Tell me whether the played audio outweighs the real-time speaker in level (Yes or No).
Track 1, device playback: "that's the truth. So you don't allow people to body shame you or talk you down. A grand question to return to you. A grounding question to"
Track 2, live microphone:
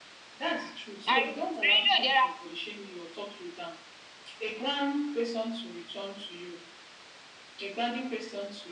No